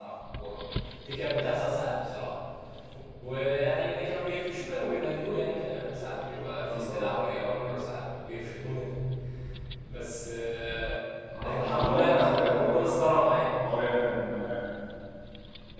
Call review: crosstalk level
present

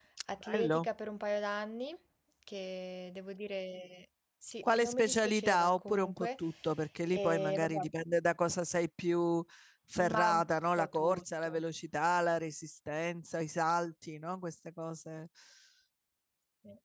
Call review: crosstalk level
present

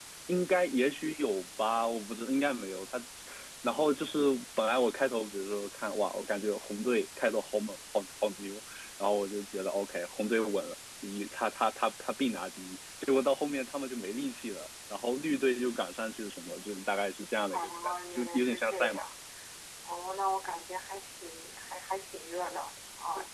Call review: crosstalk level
present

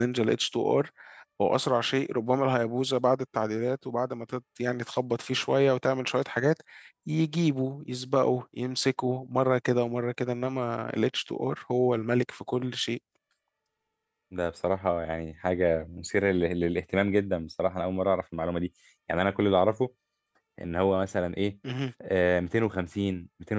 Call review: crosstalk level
none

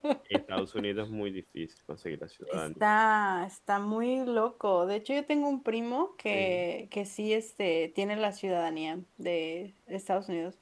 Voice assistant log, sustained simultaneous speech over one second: none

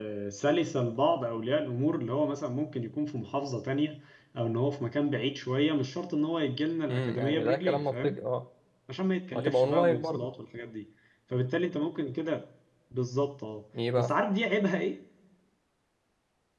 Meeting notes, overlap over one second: present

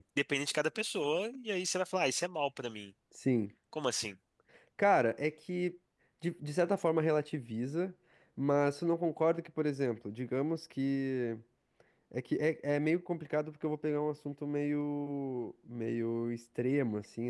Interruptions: none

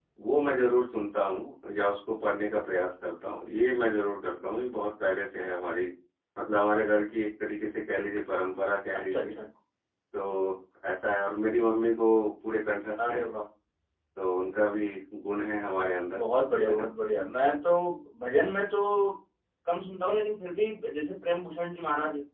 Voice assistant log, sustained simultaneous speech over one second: none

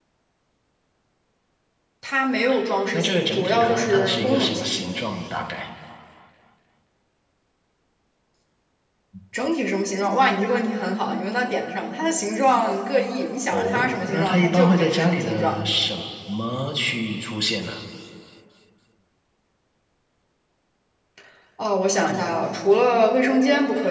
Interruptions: present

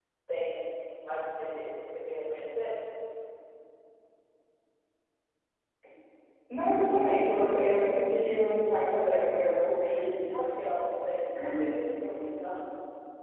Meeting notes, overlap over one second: none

